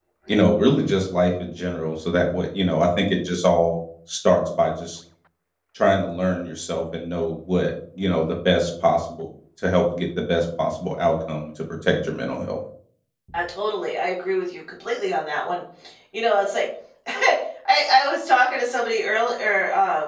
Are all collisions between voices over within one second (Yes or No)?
Yes